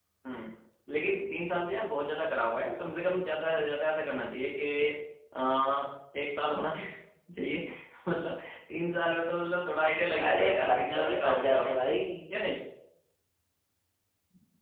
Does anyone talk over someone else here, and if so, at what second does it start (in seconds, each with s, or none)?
10.1 s